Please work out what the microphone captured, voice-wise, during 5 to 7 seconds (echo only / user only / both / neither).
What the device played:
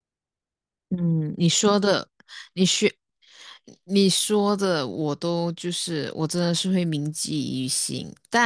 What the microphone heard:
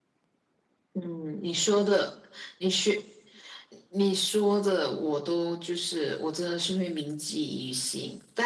echo only